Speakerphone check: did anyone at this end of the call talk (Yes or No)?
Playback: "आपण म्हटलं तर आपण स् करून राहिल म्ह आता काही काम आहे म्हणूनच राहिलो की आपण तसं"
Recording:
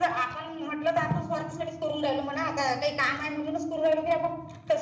No